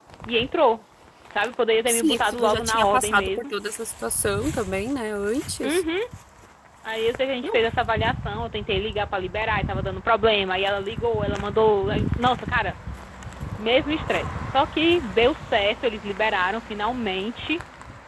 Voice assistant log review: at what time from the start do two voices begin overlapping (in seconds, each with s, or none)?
1.9 s